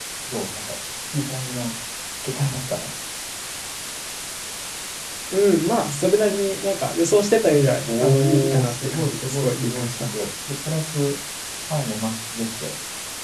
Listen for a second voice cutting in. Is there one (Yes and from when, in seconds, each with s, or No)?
Yes, from 7.9 s